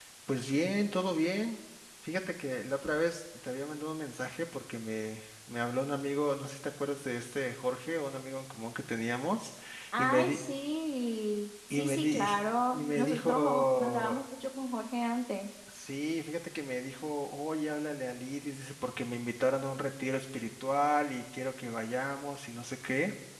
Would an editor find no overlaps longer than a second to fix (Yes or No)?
No